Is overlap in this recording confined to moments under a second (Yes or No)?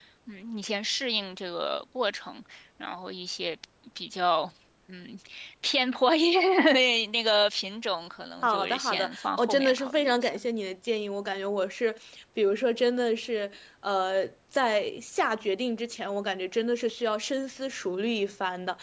No